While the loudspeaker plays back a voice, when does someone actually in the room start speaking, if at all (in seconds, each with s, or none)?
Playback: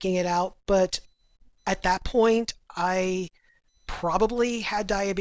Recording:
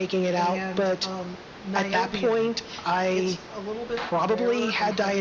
0.3 s